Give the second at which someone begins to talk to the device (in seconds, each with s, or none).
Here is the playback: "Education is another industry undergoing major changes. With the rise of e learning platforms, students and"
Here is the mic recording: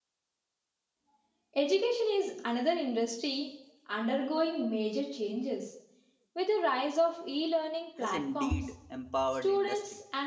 8.0 s